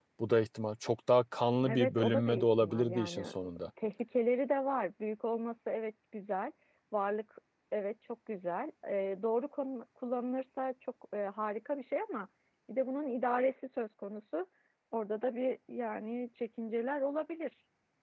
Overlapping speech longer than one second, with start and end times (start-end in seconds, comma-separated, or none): 1.7-3.3